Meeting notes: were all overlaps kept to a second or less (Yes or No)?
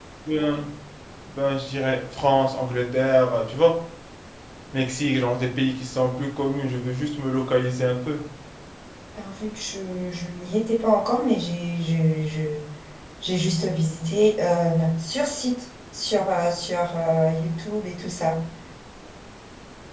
Yes